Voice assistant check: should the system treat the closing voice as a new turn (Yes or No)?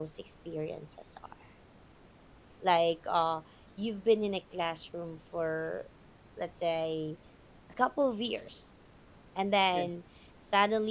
No